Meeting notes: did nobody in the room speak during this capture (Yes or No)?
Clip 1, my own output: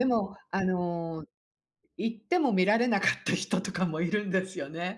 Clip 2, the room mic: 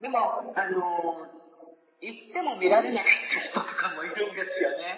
Yes